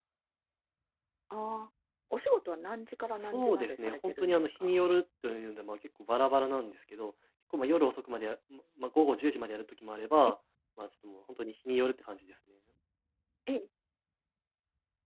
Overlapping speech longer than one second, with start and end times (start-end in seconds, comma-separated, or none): 3.2-4.8